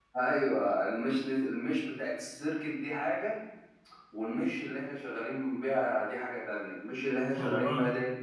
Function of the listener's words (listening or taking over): listening